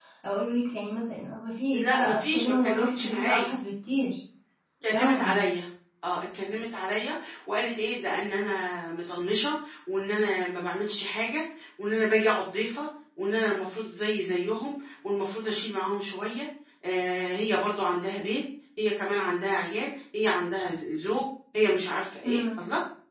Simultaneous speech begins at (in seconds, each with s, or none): 1.7 s